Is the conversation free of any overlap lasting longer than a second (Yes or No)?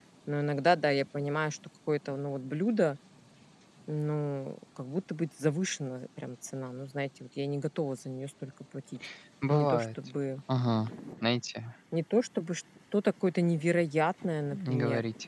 Yes